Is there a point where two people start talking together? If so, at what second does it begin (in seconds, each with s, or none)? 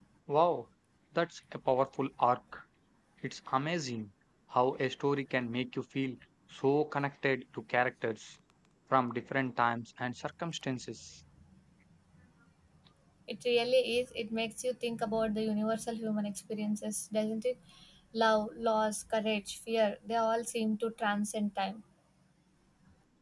none